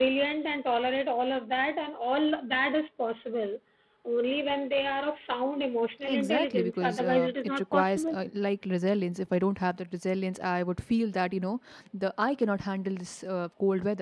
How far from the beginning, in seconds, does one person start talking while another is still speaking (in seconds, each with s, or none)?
6.0 s